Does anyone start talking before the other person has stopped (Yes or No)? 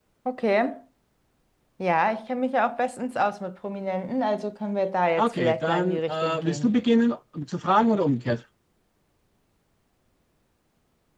Yes